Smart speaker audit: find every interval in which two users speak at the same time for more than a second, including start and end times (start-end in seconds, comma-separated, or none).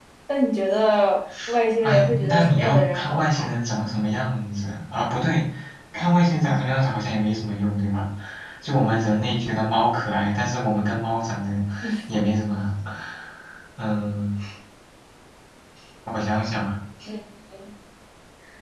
1.8-3.5